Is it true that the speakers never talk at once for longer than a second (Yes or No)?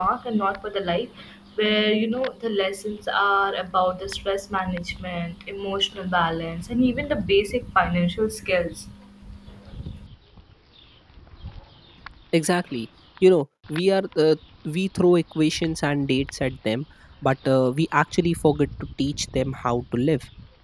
Yes